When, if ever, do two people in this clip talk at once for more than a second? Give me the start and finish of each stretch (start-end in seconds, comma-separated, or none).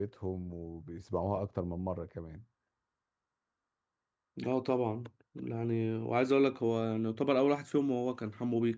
none